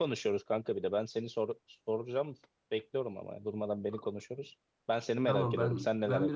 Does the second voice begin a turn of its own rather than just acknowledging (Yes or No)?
Yes